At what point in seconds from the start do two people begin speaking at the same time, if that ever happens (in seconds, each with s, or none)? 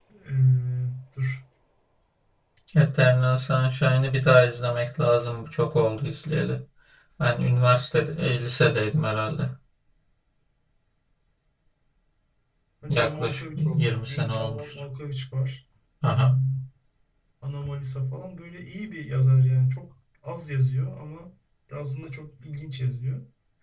12.9 s